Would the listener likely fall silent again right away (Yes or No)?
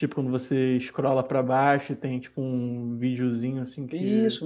No